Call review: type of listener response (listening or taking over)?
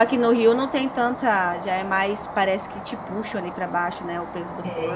taking over